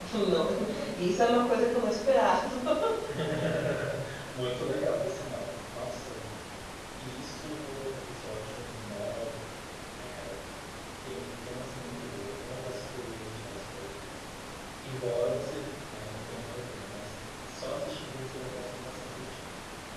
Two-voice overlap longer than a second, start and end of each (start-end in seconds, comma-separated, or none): none